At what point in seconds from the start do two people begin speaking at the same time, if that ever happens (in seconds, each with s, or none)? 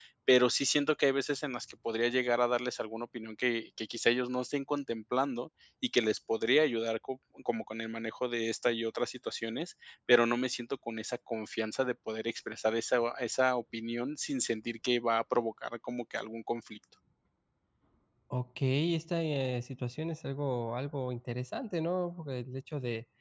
none